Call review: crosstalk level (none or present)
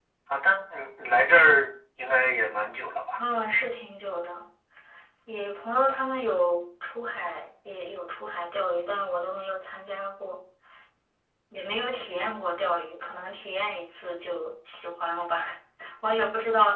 none